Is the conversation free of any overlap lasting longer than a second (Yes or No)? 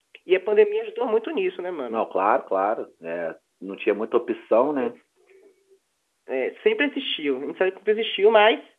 Yes